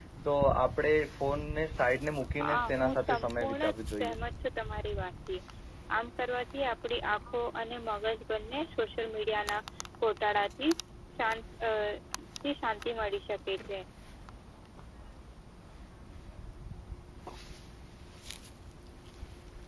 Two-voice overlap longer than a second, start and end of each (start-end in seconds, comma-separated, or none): 2.4-4.1